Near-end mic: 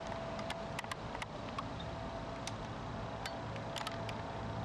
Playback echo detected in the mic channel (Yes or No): No